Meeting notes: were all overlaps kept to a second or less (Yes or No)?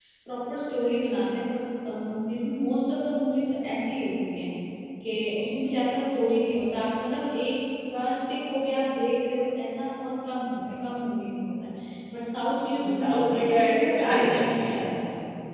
No